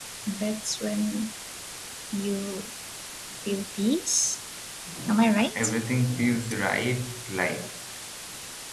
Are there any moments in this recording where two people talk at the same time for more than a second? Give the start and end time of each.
none

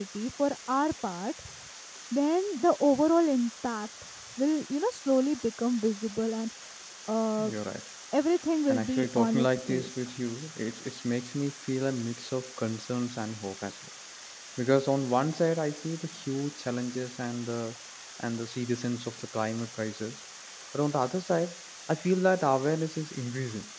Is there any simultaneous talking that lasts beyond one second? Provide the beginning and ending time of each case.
8.7-9.9

